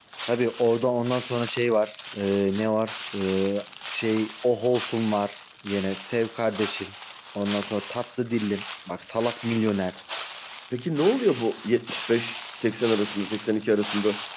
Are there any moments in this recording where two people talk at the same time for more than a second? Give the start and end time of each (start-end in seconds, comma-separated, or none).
none